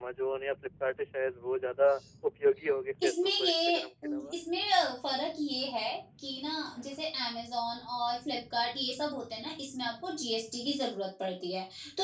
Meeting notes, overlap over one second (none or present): present